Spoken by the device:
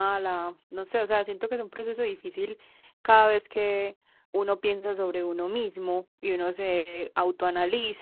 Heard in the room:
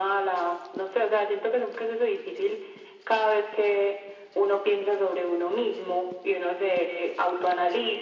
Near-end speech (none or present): none